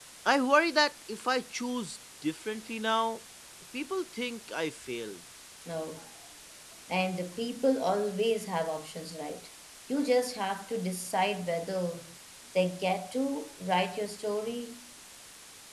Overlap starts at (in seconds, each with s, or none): none